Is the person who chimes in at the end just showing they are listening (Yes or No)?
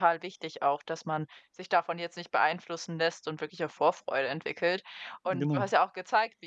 Yes